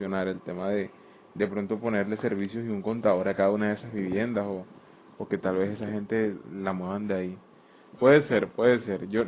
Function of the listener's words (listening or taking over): listening